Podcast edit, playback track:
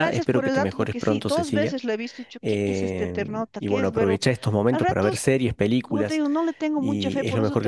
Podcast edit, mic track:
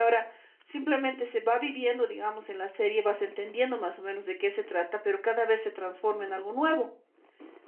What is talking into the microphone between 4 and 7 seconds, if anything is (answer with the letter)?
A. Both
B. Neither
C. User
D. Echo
C